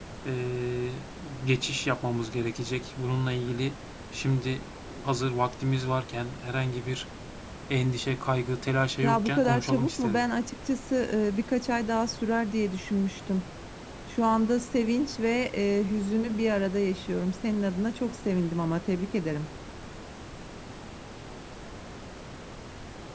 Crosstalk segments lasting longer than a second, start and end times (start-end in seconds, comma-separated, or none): 9.0-10.2